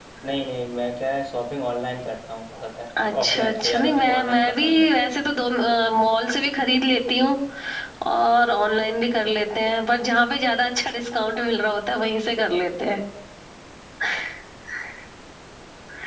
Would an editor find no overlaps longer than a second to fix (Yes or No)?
No